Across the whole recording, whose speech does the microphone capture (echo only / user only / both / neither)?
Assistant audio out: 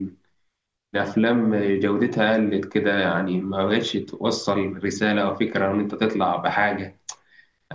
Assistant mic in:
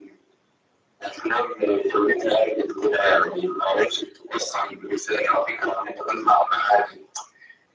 echo only